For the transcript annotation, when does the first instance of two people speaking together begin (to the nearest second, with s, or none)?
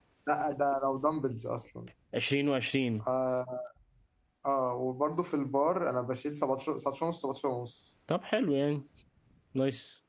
none